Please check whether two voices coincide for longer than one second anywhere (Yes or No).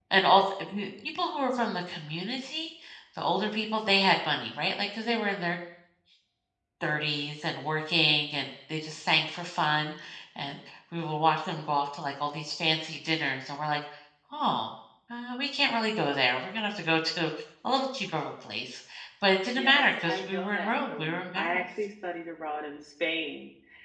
Yes